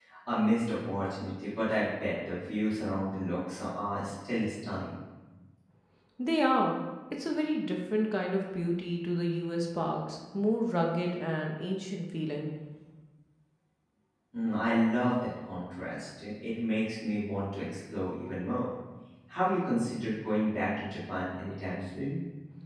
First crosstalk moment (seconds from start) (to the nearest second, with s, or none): none